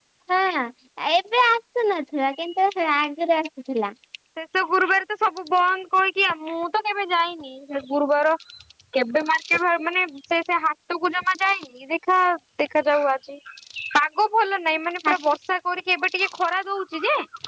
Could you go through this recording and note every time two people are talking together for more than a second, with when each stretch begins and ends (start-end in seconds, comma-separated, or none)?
none